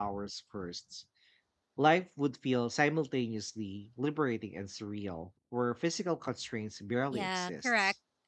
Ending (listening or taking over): taking over